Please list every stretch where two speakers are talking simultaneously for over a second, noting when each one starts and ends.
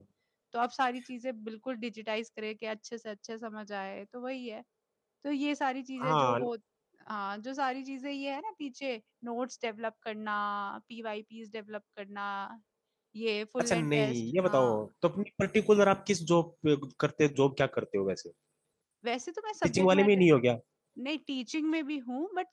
13.6-14.8

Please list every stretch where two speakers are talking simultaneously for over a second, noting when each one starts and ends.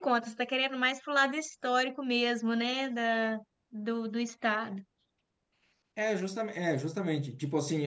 none

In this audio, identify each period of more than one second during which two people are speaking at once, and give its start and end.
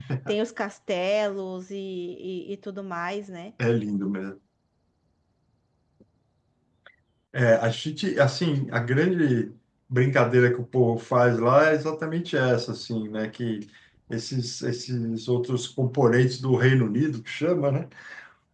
none

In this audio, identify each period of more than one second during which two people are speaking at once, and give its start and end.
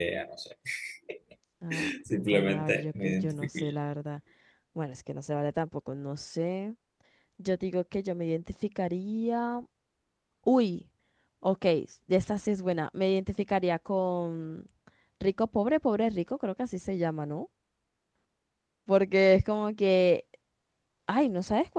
2.3-3.7

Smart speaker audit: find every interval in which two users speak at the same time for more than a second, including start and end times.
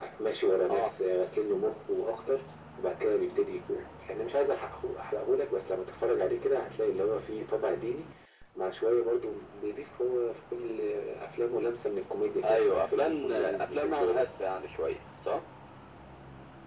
12.4-14.3

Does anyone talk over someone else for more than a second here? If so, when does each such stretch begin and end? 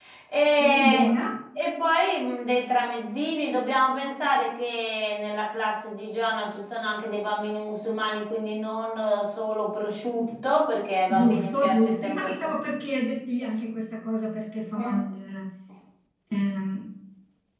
11.1-12.3

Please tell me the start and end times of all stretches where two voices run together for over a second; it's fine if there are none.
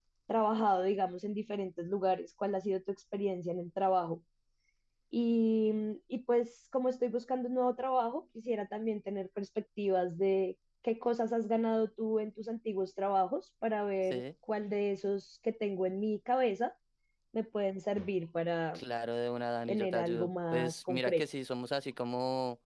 19.7-21.2

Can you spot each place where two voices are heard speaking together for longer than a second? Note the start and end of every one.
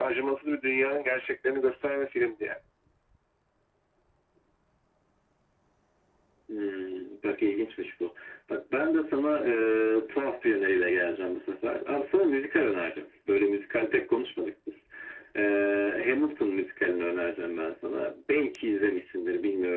none

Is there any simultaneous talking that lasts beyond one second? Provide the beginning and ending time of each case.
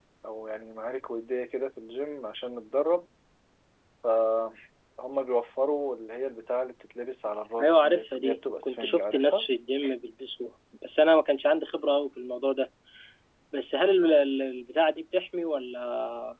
7.6-9.5

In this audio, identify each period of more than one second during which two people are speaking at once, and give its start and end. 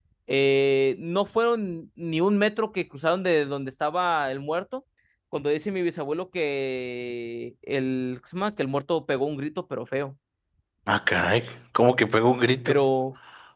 none

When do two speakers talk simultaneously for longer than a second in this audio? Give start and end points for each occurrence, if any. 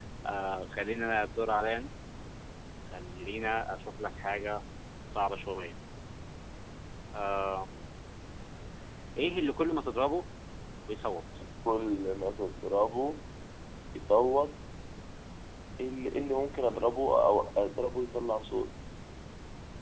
none

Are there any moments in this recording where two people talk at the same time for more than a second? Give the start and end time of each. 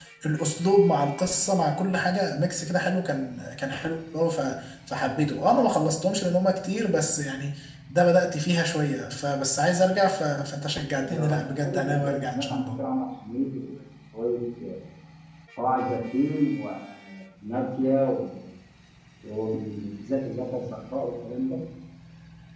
11.0-12.7

